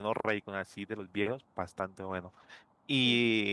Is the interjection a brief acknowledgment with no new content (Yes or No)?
Yes